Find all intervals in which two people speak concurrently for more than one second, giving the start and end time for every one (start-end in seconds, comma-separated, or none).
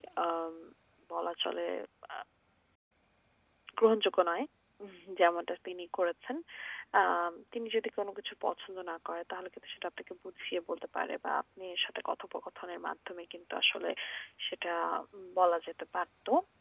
none